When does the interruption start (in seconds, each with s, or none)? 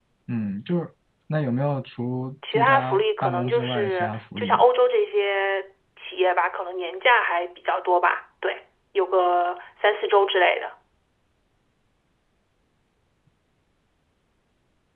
2.4 s